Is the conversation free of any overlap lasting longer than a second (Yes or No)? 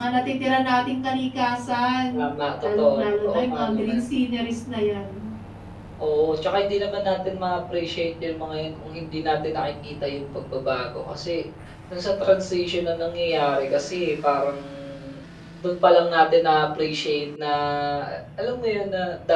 No